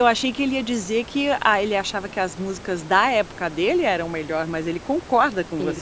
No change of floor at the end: No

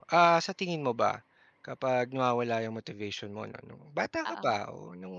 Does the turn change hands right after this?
No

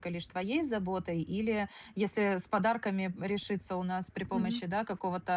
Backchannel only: Yes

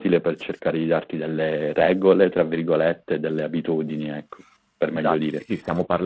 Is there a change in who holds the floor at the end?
Yes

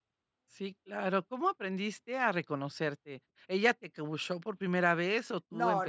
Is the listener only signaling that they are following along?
No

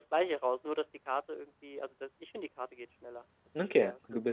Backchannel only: No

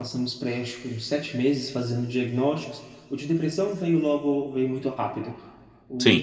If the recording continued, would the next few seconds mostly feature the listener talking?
No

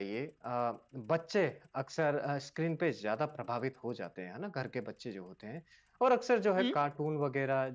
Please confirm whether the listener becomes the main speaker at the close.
No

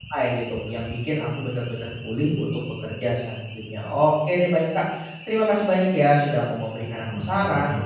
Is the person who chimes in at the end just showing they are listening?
Yes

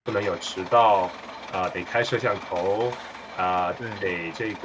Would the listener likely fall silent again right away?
Yes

